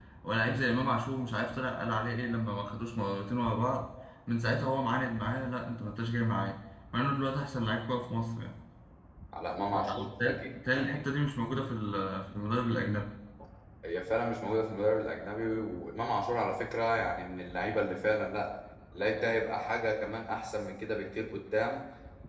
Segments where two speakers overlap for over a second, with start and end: 9.7-11.1

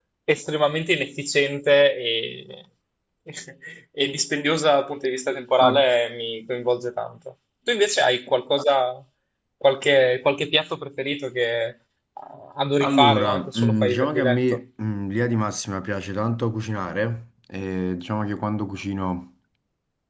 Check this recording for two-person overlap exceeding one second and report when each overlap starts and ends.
12.8-14.6

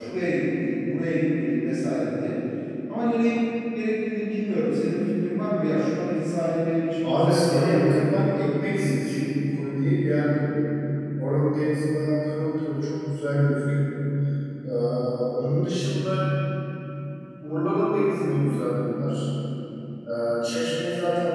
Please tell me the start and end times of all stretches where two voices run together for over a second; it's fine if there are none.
7.0-9.2

